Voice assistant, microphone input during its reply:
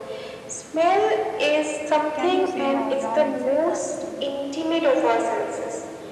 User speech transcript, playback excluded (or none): can you say uh, your insights as well?